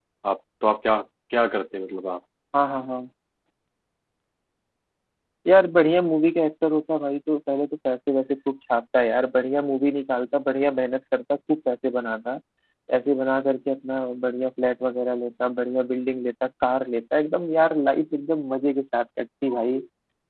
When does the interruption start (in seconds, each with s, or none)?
none